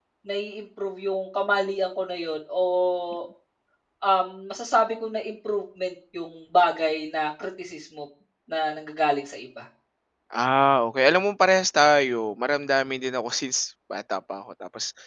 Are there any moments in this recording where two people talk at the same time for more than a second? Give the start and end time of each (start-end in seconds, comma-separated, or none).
none